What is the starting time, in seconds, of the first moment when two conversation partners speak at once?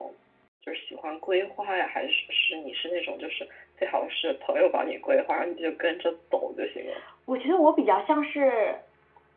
none

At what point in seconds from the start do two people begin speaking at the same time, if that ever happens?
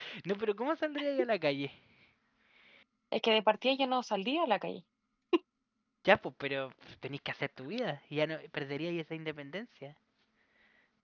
none

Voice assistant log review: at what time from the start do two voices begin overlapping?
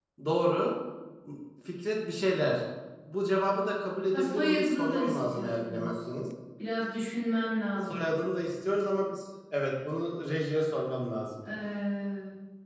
4.1 s

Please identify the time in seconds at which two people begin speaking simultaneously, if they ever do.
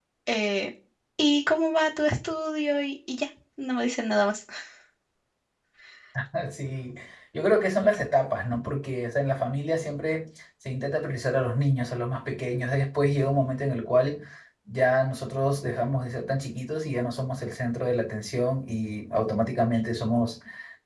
none

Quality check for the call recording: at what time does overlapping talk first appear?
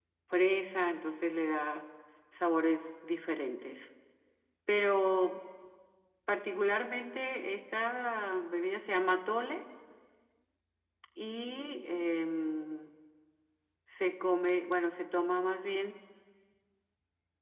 none

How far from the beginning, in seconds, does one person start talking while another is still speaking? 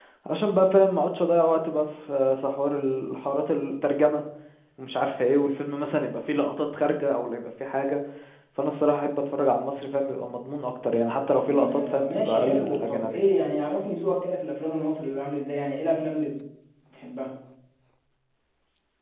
11.3 s

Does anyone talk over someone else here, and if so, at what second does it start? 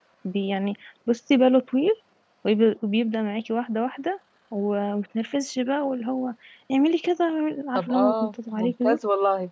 7.7 s

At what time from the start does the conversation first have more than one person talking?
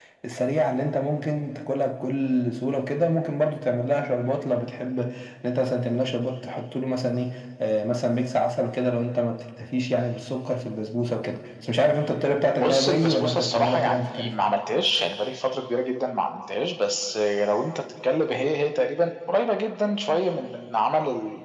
12.6 s

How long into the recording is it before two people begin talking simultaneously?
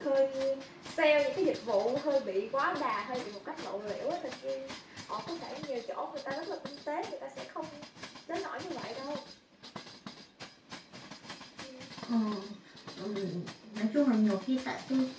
none

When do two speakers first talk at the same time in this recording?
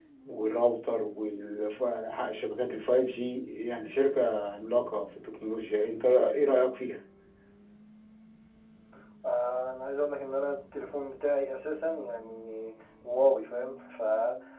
none

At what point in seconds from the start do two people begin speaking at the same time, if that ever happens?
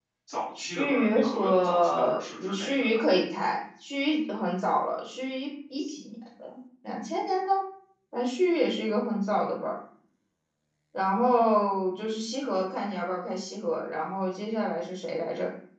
0.6 s

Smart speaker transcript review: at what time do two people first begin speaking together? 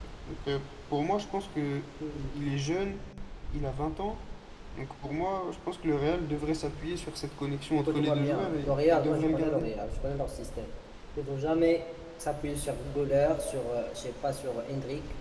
7.8 s

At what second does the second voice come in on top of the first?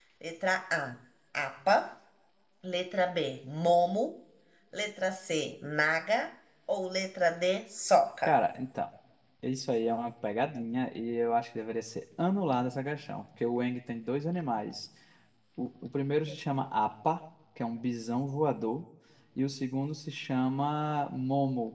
none

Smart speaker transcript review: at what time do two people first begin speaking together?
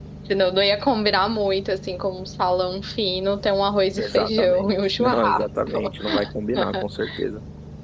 4.0 s

